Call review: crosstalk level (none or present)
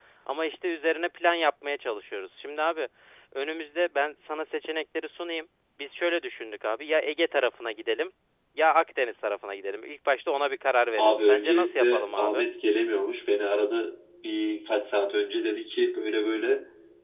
present